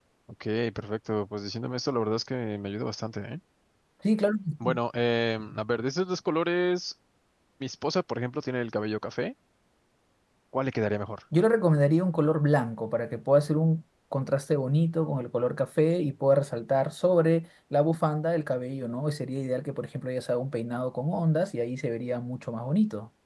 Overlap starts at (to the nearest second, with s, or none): none